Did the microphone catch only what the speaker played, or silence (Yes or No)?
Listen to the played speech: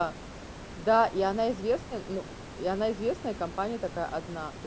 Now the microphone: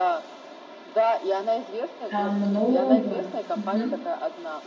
No